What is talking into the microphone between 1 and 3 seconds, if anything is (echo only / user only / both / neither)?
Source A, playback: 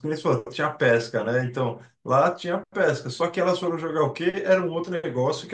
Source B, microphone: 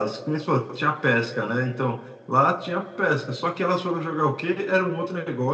echo only